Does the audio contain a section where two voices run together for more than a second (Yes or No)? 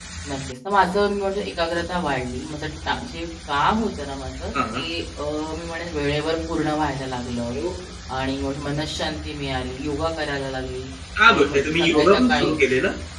Yes